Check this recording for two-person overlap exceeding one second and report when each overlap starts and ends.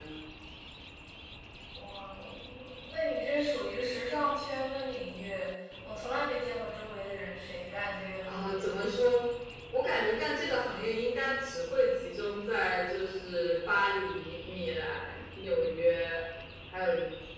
none

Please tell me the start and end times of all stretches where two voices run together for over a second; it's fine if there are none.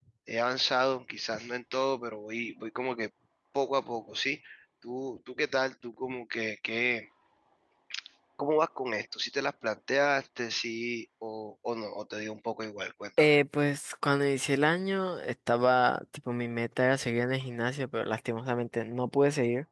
none

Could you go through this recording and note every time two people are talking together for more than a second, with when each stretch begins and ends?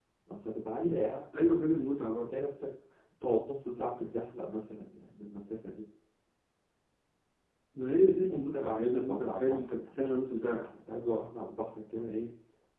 8.3-10.0

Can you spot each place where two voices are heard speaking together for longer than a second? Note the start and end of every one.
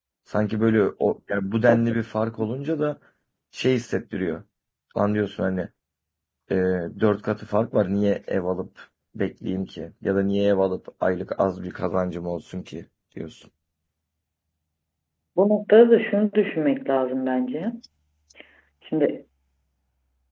none

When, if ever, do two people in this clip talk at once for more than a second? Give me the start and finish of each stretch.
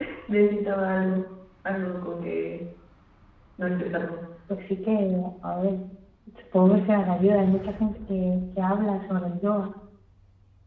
none

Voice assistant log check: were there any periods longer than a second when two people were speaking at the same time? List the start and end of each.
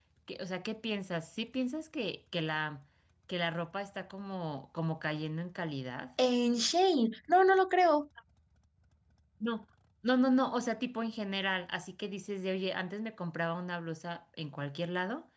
none

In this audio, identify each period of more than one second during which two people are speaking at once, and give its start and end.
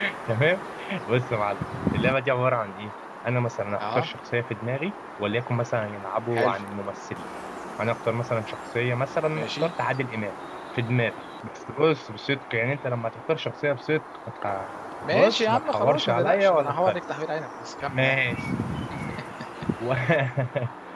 15.1-17.0

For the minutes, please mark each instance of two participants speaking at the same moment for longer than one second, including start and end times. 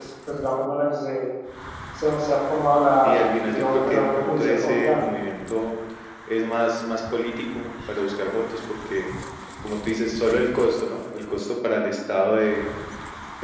3.0-5.0

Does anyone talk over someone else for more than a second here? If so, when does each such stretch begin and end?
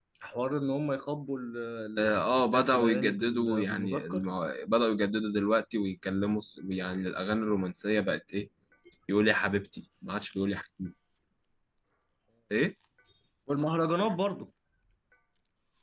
2.0-4.3

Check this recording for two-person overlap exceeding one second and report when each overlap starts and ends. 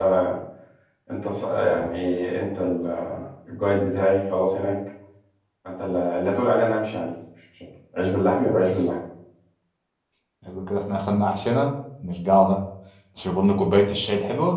none

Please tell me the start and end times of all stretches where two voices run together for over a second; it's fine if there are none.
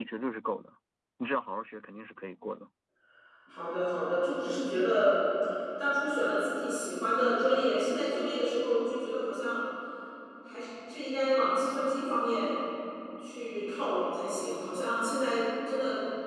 none

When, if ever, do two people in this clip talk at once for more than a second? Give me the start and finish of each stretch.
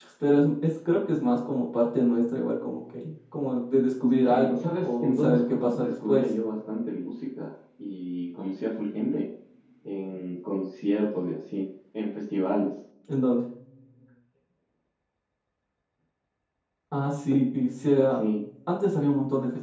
4.3-6.3

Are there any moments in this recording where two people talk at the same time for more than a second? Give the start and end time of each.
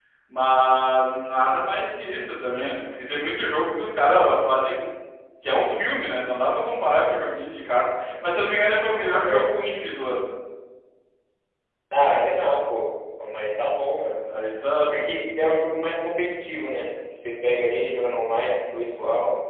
none

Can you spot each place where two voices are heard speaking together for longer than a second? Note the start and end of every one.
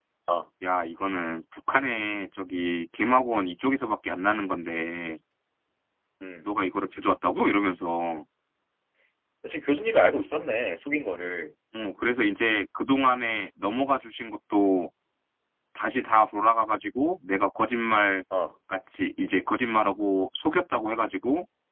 none

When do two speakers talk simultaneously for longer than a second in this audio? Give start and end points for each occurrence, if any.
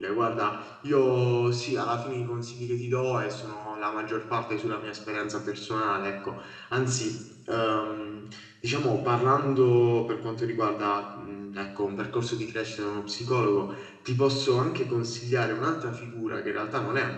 none

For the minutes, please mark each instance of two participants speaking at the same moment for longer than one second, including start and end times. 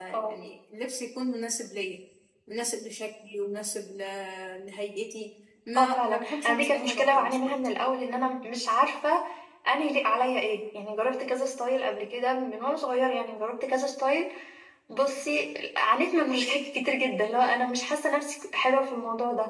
5.8-7.5

